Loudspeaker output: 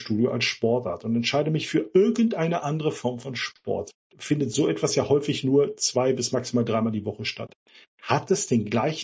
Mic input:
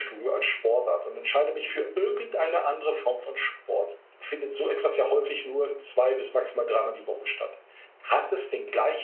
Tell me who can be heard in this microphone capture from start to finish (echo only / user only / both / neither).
echo only